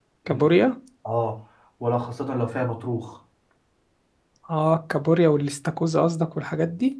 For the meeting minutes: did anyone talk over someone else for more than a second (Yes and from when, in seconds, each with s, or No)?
No